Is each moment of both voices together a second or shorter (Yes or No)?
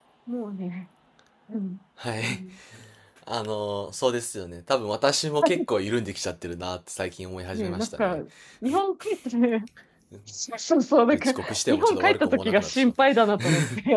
No